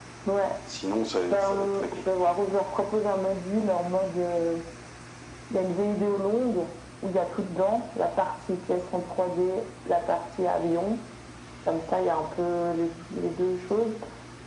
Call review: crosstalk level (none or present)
present